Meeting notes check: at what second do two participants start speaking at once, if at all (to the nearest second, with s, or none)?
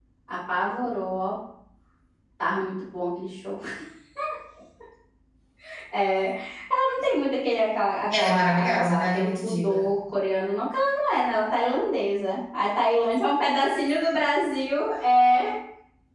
8 s